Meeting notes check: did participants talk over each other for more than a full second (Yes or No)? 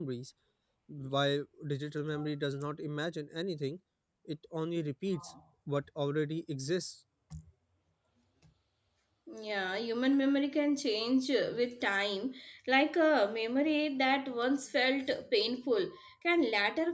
No